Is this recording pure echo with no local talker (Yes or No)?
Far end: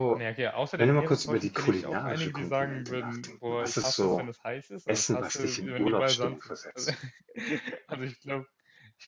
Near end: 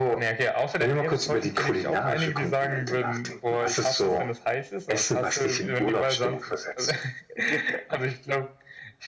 Yes